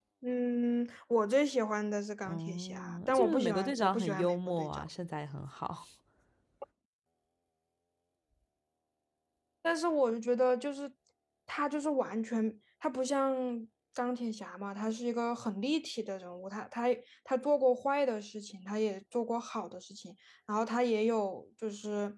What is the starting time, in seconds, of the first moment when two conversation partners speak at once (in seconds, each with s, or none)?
2.2 s